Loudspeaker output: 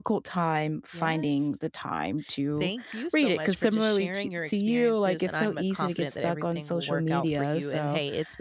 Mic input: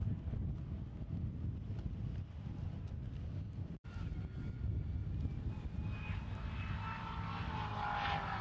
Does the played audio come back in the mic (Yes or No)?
No